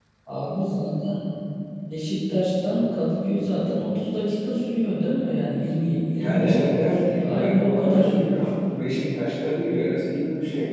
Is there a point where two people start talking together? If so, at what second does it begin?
6.1 s

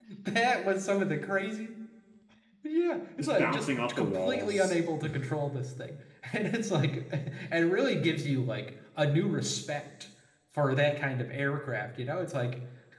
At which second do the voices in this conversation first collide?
3.2 s

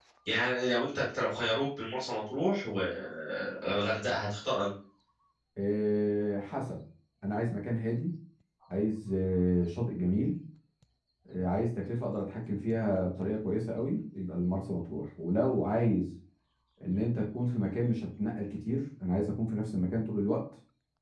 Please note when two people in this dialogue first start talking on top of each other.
none

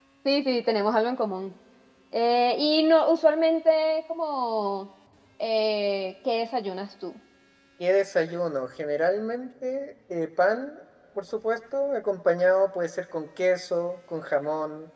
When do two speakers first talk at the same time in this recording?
none

